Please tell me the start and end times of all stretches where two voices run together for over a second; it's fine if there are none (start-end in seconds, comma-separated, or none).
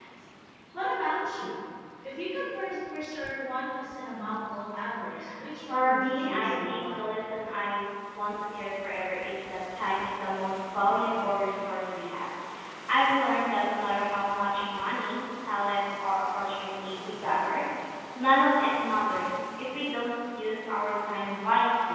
5.7-7.1